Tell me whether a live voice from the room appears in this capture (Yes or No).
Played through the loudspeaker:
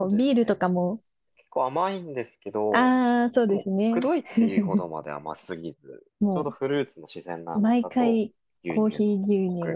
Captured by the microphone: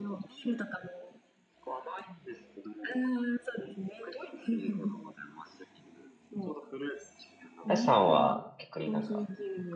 Yes